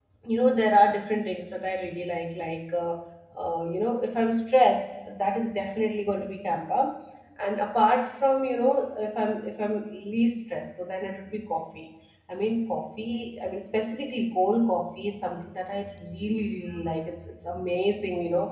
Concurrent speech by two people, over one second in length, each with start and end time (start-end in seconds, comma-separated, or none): none